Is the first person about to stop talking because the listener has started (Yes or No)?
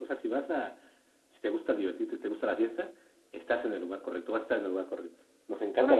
Yes